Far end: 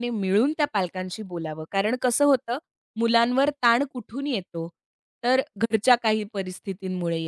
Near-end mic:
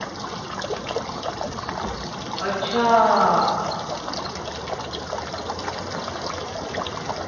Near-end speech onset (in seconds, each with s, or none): 2.4 s